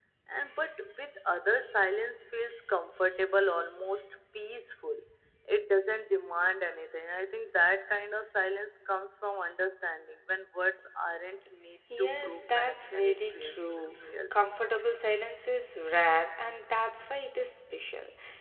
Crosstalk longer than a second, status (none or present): present